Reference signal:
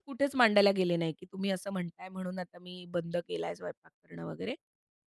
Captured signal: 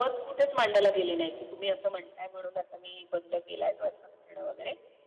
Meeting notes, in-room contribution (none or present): none